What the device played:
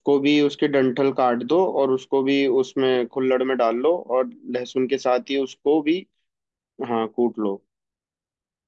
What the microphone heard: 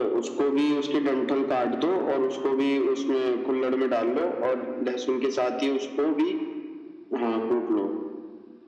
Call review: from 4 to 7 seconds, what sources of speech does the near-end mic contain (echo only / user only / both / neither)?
echo only